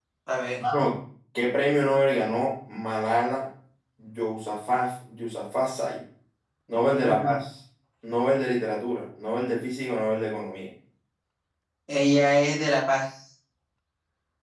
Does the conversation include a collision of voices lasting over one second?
No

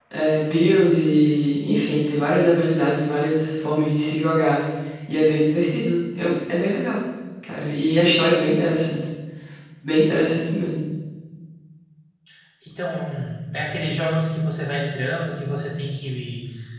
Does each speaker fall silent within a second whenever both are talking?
Yes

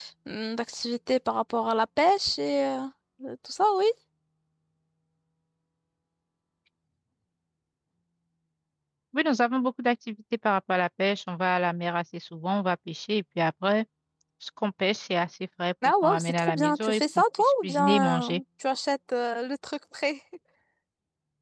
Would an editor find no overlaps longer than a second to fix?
No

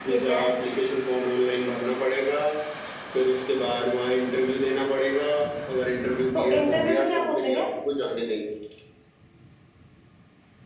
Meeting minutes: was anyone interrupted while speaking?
Yes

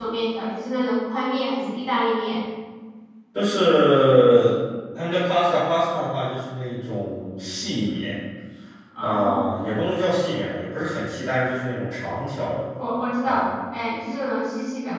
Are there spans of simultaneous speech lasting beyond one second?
No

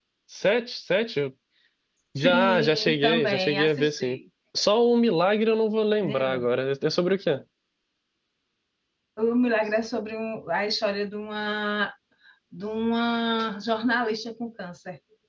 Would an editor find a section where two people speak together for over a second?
Yes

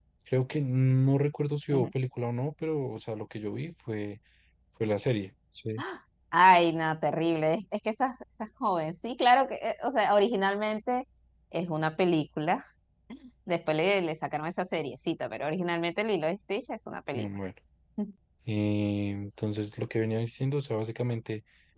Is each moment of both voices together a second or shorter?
Yes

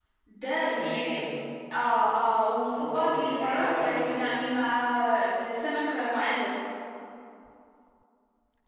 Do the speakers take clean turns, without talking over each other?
No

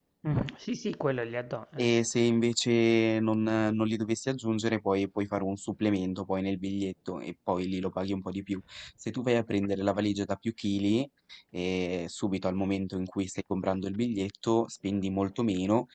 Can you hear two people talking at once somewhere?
No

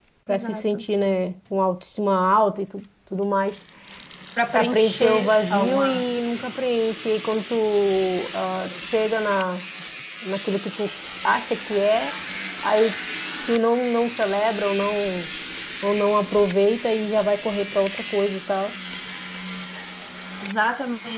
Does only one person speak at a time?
No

